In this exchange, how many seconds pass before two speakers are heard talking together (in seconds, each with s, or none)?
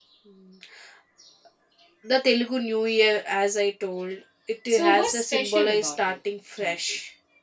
4.7 s